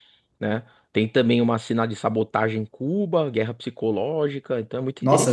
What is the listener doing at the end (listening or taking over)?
taking over